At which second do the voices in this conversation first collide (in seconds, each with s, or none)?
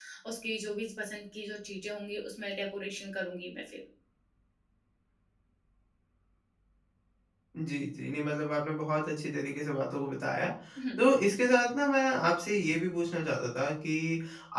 none